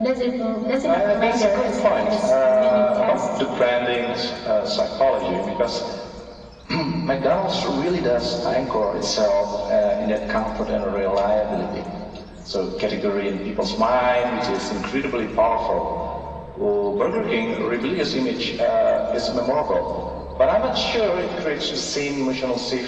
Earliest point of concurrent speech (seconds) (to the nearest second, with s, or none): 1 s